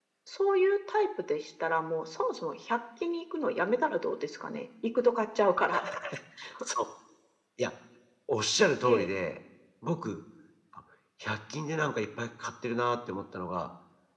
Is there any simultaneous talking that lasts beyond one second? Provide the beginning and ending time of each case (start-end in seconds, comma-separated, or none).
none